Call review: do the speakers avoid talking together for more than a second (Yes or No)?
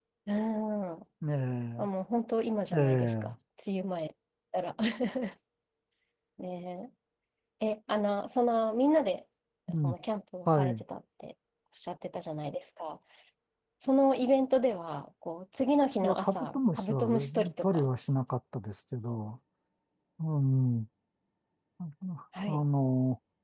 No